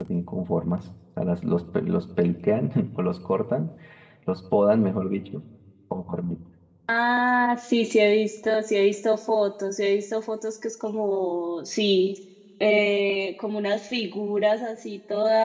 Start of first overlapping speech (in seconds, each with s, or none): none